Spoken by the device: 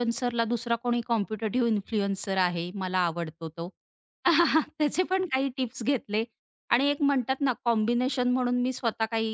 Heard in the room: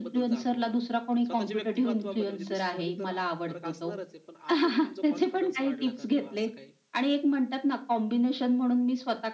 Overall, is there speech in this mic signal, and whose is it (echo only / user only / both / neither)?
both